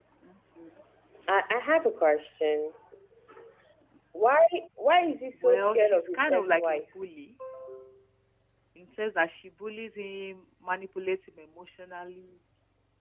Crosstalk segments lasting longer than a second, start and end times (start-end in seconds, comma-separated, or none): 5.4-6.8